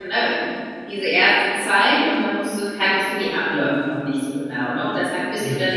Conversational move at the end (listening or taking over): listening